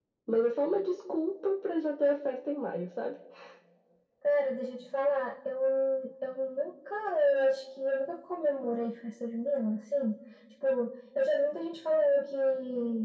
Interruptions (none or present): none